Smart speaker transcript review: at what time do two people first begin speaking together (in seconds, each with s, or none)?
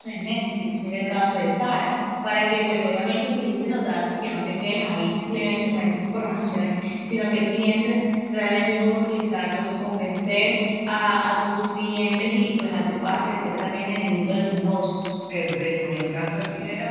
none